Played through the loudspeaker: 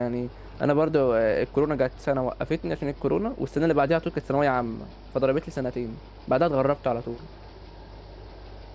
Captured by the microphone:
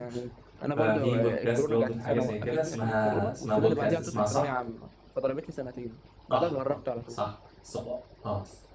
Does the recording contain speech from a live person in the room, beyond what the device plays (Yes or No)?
Yes